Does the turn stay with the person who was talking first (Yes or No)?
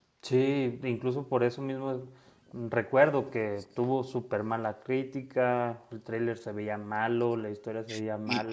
No